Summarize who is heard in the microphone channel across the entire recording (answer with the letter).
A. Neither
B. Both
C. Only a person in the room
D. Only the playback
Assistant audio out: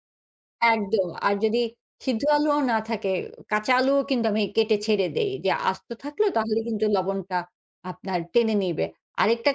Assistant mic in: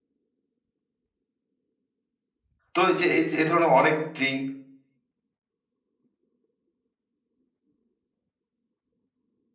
C